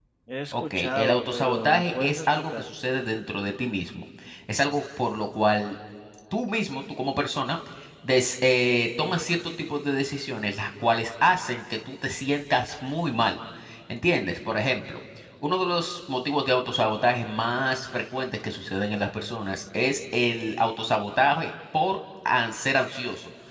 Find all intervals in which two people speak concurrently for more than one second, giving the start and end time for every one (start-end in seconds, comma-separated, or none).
0.5-2.7